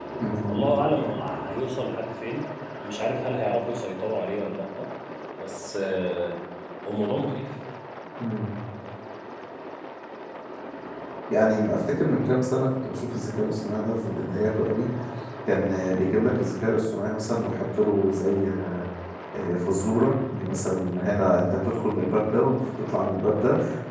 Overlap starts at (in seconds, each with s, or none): none